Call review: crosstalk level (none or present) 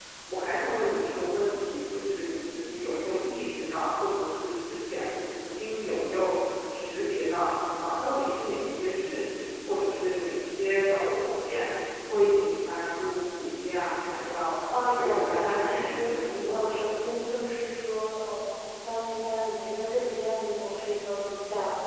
present